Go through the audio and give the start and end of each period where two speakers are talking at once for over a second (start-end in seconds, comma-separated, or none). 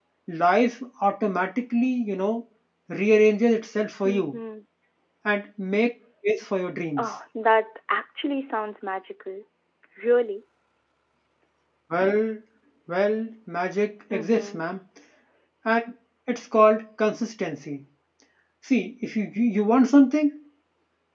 none